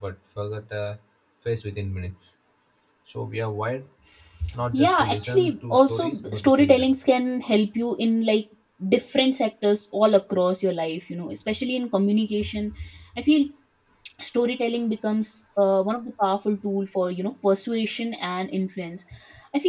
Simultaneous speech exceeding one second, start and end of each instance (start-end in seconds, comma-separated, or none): 4.7-6.9